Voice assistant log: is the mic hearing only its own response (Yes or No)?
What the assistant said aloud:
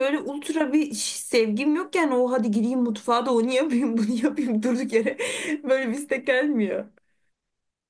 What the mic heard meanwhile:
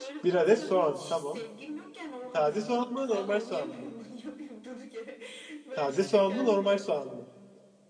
No